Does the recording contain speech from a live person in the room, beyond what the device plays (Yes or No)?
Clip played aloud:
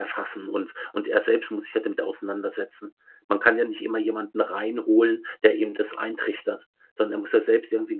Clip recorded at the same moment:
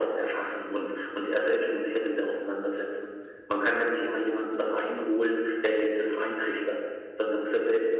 No